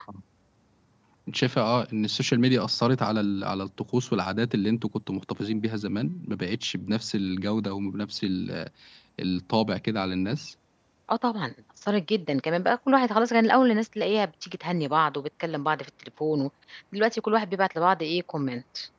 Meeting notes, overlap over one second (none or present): none